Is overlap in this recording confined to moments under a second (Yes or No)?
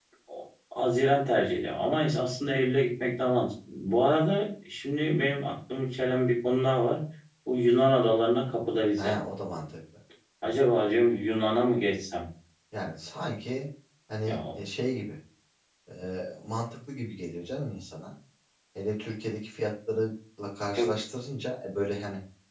Yes